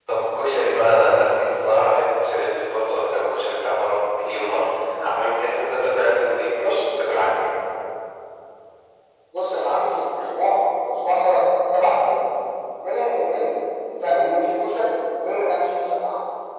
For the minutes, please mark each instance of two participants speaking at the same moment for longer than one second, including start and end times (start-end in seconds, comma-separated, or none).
none